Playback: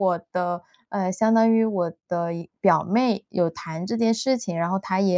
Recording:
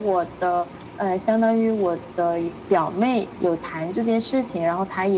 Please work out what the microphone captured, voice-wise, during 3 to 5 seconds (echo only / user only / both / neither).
echo only